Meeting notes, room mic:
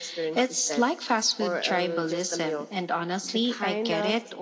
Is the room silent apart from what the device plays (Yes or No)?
Yes